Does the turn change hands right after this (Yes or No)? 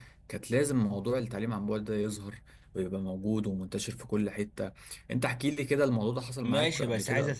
Yes